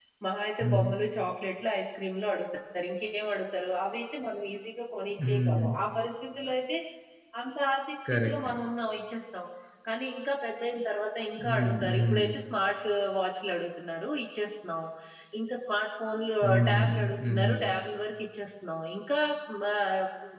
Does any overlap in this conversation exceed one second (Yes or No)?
Yes